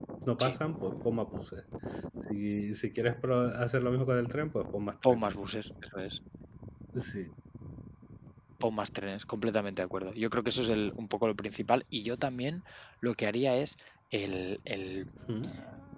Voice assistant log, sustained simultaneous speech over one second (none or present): none